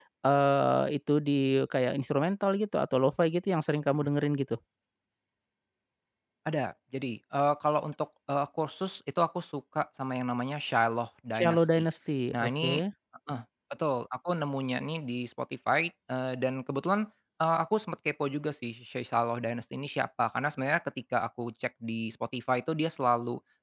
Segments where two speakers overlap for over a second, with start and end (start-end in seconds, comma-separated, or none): none